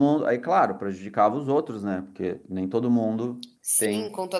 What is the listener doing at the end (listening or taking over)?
taking over